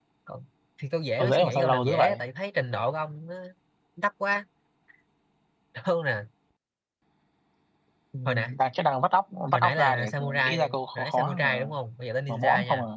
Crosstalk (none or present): present